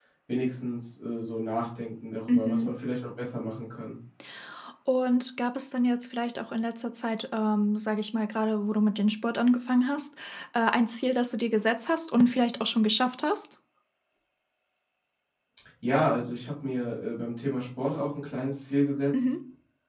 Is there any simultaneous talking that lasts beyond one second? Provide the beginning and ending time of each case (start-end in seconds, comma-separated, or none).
none